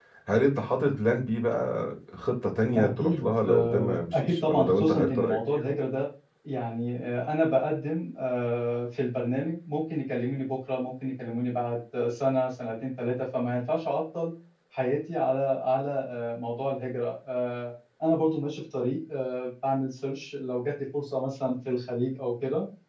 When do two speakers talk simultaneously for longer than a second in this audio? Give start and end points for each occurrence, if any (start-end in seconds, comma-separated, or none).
2.7-5.4